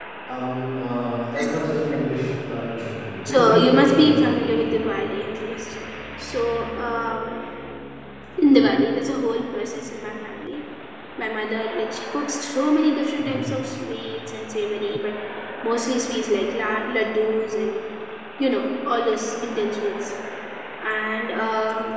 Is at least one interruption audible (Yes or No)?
Yes